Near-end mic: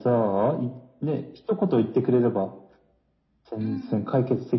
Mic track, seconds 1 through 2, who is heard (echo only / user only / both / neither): echo only